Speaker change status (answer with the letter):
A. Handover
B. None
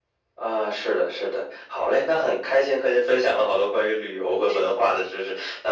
B